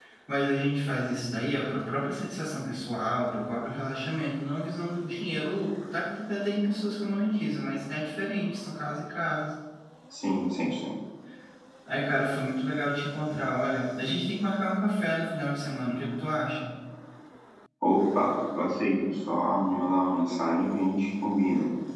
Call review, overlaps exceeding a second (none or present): none